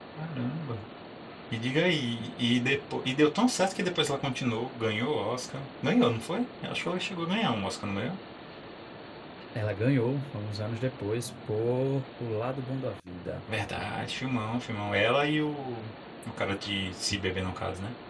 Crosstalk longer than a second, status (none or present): none